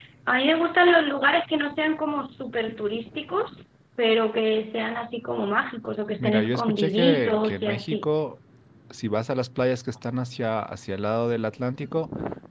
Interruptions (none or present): present